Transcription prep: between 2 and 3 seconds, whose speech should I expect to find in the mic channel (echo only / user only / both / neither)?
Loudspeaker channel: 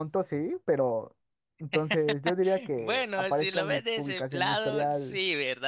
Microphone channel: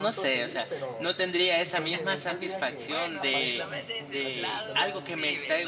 both